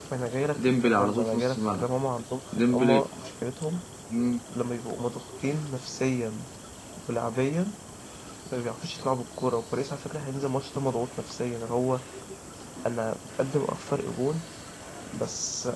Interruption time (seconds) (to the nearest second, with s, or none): 1 s